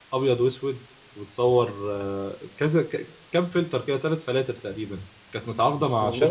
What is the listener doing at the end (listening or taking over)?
listening